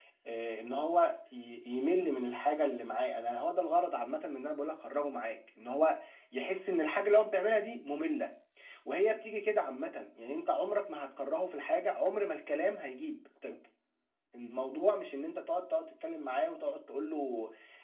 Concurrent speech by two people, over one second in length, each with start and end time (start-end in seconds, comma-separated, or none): none